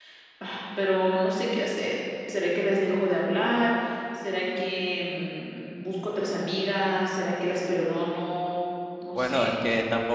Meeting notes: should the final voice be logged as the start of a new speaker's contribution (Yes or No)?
Yes